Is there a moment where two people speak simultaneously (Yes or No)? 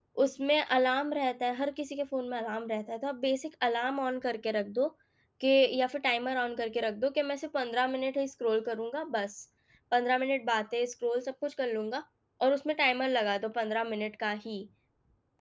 No